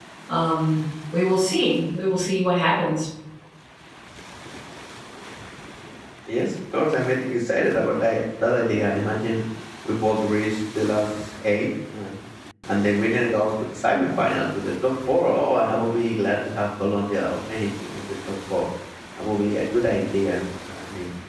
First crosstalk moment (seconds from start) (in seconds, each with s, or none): none